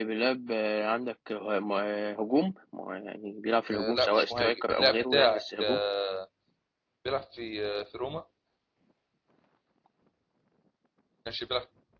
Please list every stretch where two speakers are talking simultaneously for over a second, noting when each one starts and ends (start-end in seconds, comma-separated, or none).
3.7-5.8